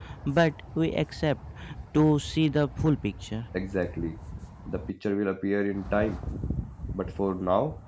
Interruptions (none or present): none